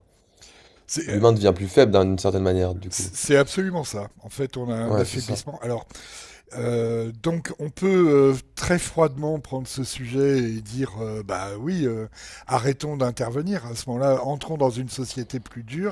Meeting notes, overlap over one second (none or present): none